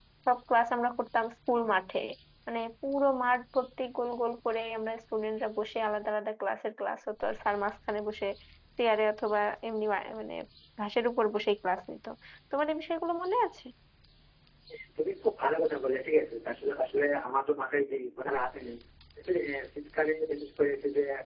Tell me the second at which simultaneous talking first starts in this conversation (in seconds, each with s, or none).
none